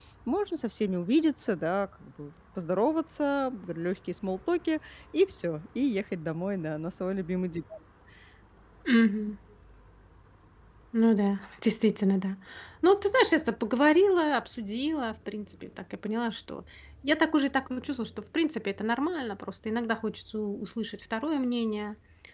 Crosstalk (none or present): none